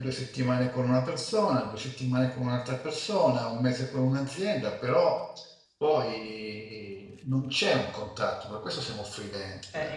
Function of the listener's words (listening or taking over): taking over